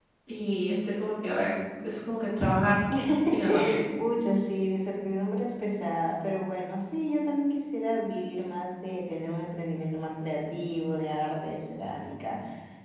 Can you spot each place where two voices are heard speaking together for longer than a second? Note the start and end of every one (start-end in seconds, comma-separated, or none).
none